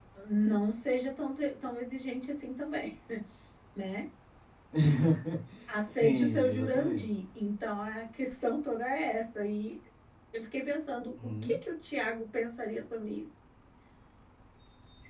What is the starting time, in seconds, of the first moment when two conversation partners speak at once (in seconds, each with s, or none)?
5.9 s